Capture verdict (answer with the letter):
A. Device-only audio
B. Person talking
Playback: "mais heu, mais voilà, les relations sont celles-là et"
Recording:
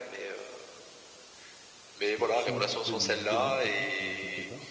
B